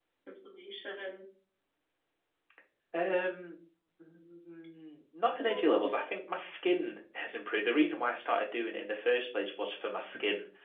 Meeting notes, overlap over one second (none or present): none